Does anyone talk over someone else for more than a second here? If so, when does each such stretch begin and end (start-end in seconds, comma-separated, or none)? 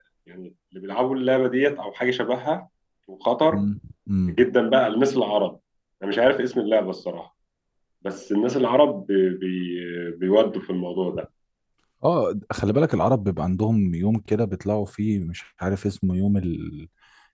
none